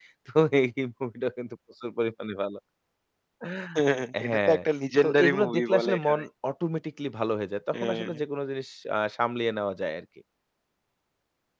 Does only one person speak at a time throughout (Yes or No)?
No